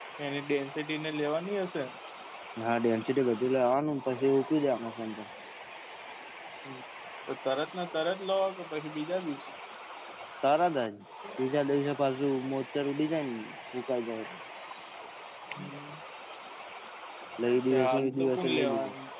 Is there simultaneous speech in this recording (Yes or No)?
Yes